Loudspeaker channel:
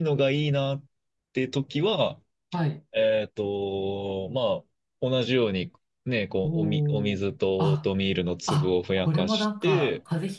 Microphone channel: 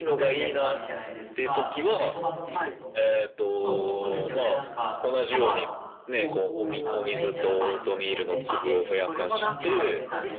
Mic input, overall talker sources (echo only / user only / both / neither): both